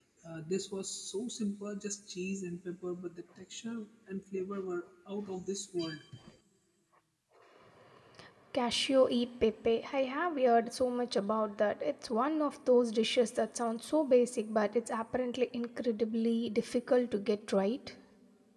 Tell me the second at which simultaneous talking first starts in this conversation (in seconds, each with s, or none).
none